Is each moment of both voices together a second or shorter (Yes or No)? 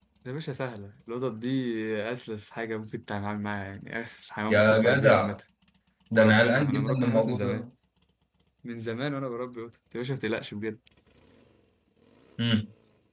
No